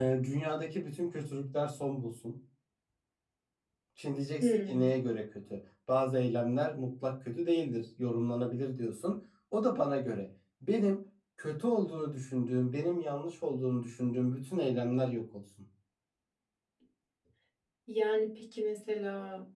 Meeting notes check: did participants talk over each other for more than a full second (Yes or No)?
No